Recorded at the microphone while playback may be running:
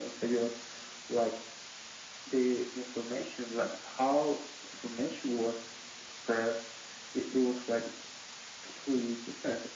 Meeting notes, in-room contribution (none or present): none